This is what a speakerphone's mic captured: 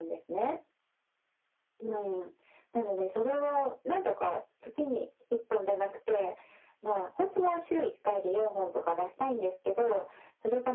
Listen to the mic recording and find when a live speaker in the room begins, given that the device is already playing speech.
none

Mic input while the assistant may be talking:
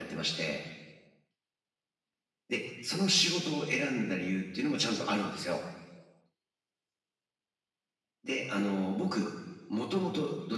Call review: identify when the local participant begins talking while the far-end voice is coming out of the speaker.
none

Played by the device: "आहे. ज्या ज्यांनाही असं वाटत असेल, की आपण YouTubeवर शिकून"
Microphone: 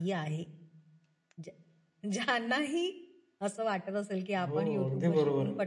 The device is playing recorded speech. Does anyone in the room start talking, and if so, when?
4.5 s

